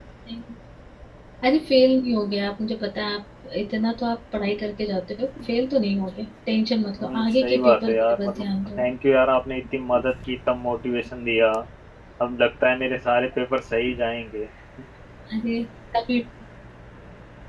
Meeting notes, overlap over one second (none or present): present